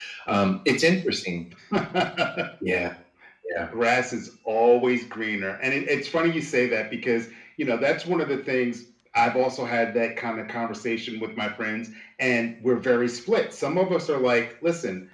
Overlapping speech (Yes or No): No